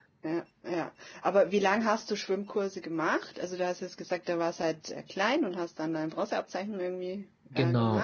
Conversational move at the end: taking over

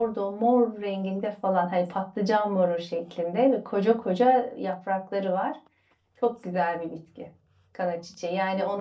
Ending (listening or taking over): listening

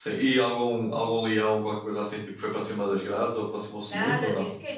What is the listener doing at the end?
taking over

